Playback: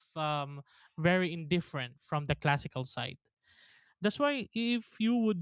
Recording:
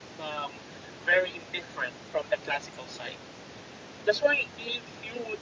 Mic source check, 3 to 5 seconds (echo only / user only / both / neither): echo only